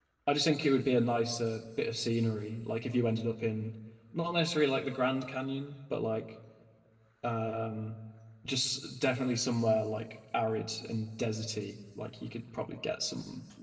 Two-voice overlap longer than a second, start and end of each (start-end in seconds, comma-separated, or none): none